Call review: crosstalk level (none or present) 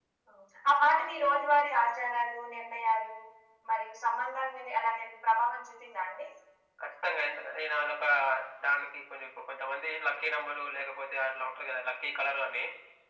none